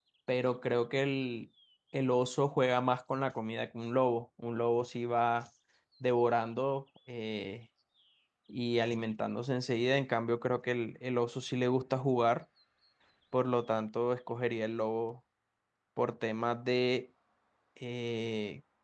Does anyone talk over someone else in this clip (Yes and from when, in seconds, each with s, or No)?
No